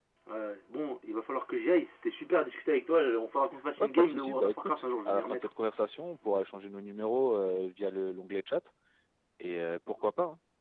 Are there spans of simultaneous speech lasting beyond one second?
Yes, from 3.8 s

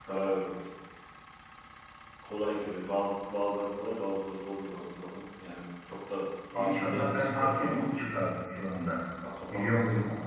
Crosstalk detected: Yes, from 6.5 s

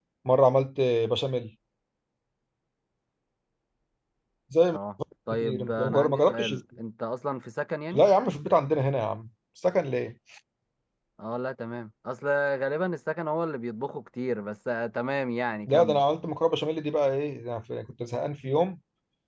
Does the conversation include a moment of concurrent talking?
Yes, from 5.3 s

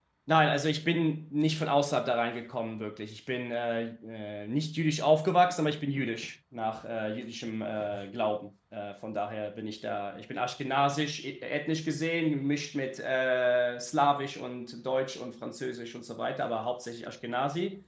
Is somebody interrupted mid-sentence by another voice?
No

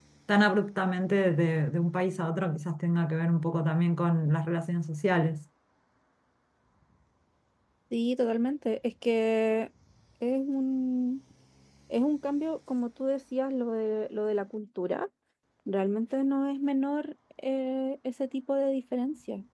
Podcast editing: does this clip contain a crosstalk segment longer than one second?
No

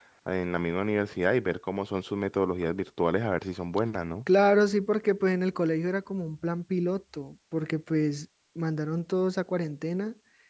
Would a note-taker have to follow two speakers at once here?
No

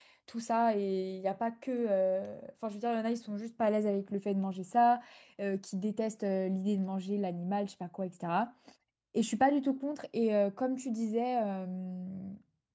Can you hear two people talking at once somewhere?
No

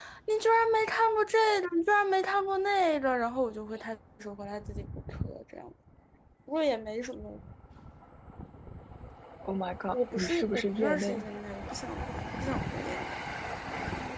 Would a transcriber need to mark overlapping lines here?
Yes, from 9.9 s

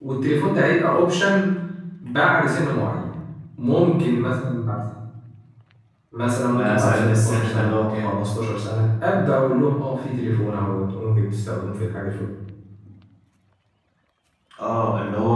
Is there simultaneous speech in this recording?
Yes, from 6.5 s

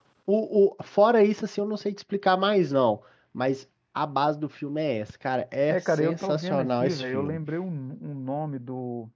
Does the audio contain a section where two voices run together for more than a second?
Yes, from 5.7 s

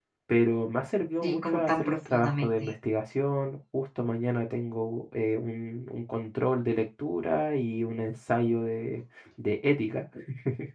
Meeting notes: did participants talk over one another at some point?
Yes, from 1.2 s

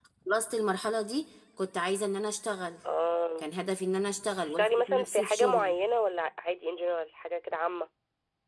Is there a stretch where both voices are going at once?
Yes, from 4.4 s

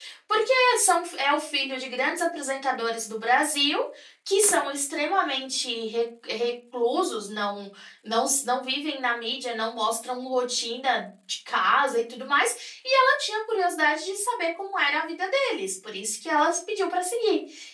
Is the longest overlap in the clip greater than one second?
No

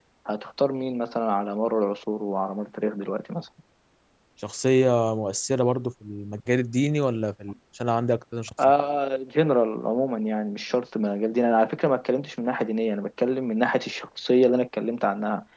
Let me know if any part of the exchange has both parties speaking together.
No

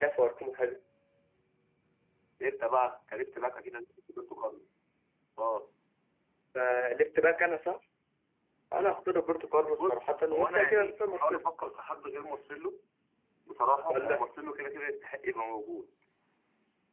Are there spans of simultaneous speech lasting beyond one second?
Yes, from 9.7 s

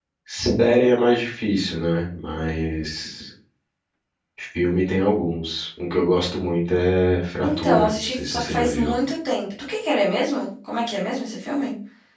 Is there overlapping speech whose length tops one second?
Yes, from 7.4 s

